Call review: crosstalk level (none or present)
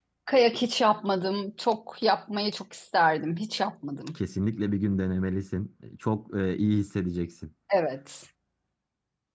none